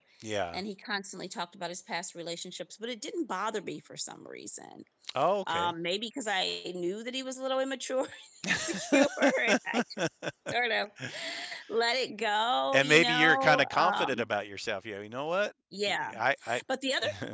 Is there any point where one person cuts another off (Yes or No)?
Yes